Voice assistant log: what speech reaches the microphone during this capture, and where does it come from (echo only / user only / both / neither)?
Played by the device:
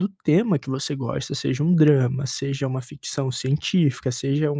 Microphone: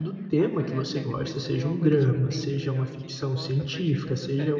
both